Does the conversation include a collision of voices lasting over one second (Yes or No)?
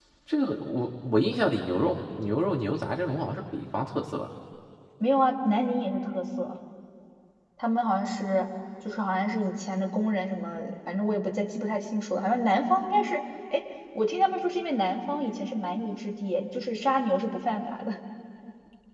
No